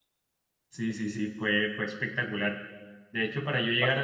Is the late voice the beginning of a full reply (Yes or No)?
No